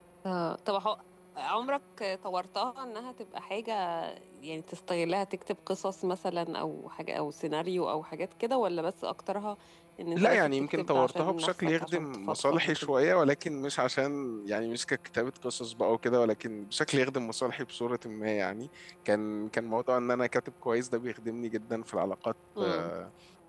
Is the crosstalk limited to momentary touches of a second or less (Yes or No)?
No